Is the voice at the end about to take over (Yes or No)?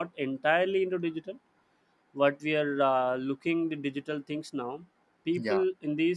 No